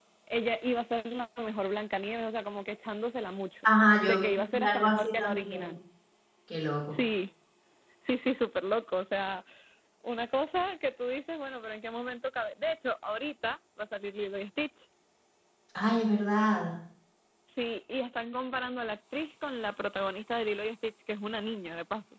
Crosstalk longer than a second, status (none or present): present